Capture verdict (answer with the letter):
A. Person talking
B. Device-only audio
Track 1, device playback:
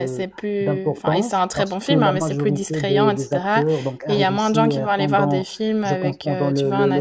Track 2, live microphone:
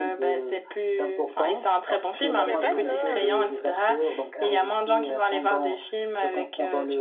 A